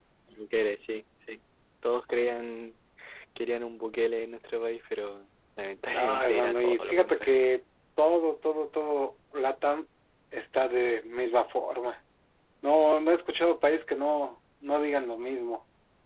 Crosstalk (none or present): present